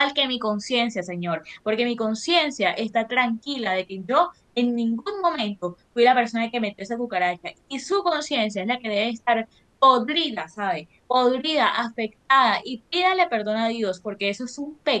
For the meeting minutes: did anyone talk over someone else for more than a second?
No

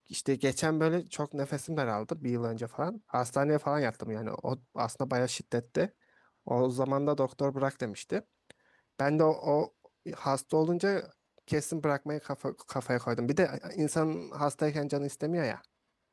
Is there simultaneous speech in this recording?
No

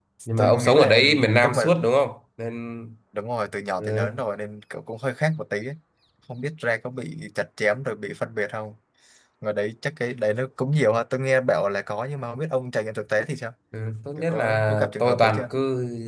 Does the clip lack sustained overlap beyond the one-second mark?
No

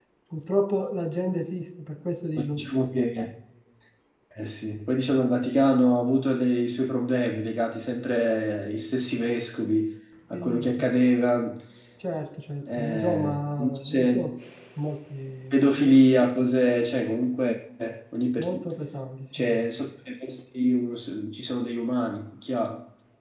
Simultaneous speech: Yes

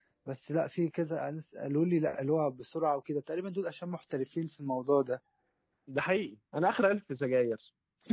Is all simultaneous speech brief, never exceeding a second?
Yes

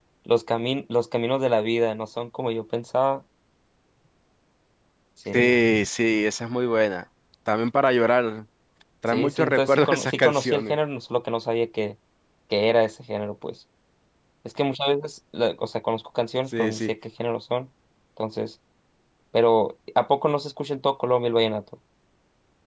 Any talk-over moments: Yes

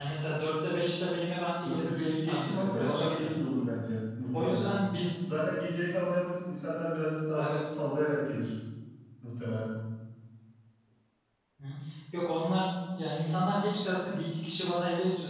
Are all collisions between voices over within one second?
No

